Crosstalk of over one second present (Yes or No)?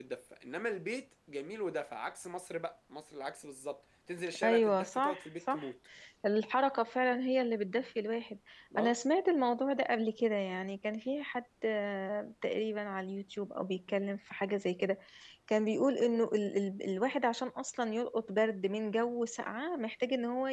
Yes